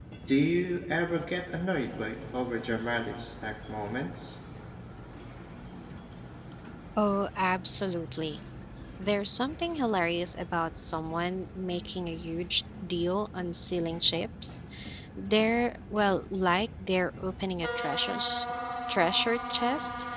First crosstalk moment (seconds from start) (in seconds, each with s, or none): none